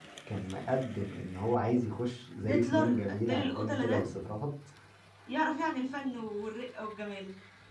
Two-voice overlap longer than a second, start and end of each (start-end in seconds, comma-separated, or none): 2.5-4.0